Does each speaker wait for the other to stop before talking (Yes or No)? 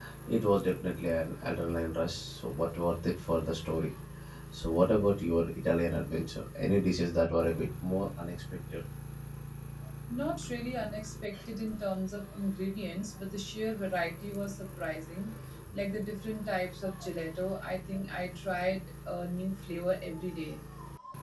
Yes